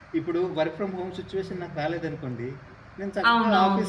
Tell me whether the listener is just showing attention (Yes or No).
Yes